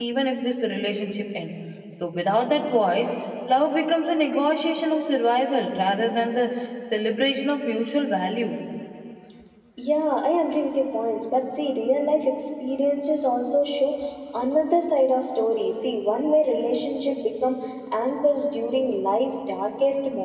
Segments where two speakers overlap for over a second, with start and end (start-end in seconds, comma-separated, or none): none